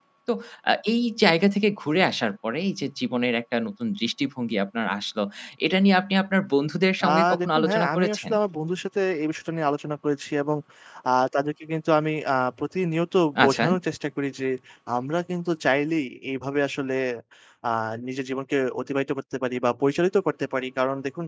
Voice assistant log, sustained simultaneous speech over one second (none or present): present